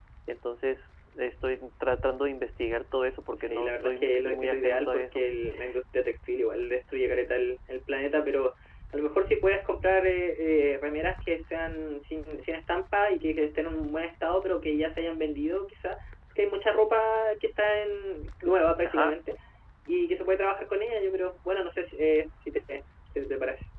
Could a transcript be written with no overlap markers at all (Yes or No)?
No